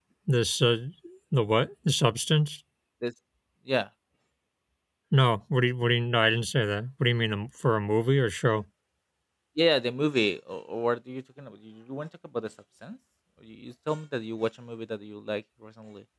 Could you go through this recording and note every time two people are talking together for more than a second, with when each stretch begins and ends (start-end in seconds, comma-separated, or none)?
none